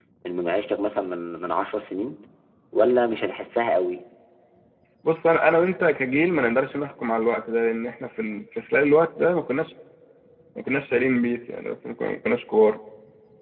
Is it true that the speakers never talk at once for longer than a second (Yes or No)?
Yes